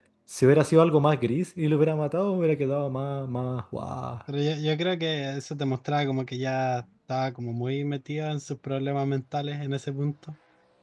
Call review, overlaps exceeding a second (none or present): none